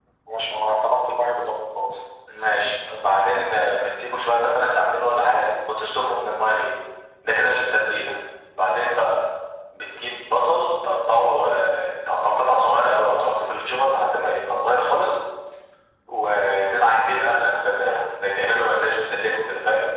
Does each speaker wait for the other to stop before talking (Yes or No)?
Yes